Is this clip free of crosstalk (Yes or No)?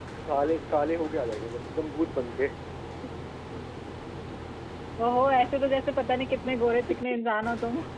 Yes